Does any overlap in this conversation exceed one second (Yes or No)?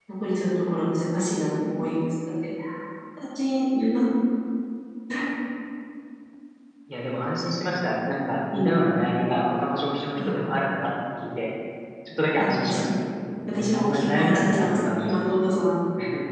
Yes